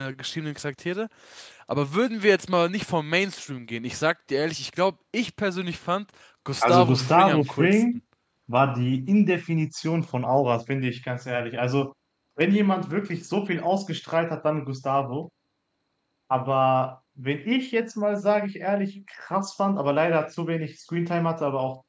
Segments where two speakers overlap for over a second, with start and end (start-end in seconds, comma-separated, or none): 6.6-7.8